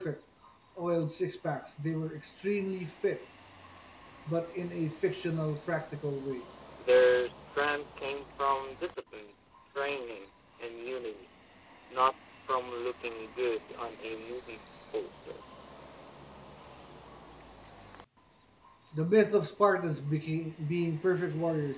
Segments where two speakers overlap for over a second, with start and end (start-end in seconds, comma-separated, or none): none